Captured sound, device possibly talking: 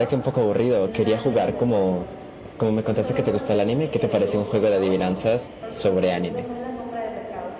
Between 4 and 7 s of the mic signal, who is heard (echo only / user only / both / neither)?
both